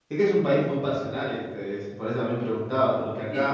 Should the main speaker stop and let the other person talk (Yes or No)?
Yes